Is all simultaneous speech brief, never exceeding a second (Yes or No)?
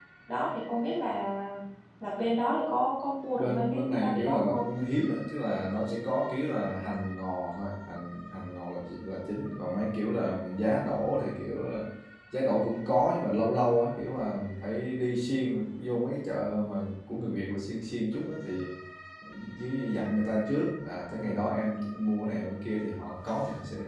No